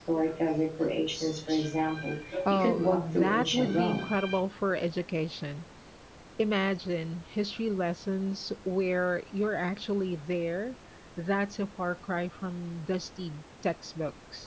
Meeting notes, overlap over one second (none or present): present